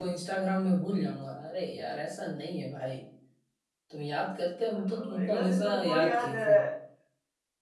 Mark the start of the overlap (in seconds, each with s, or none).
4.7 s